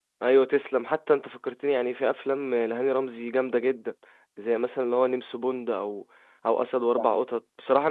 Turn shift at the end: No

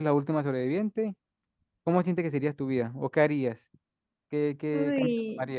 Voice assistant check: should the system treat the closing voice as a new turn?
Yes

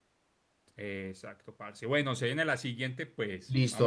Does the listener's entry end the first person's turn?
Yes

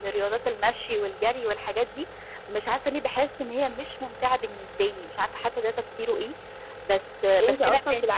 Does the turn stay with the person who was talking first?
No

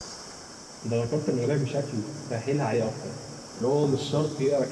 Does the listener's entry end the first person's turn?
No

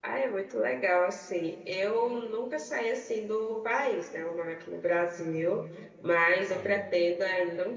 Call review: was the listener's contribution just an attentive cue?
Yes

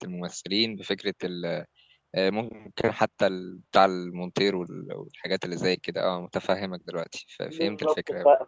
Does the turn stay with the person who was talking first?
No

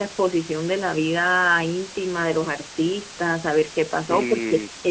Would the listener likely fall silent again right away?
Yes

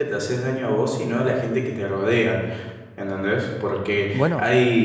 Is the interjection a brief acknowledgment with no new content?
Yes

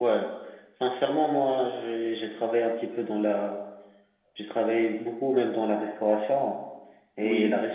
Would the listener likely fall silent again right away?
Yes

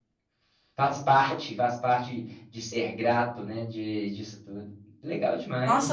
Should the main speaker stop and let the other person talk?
Yes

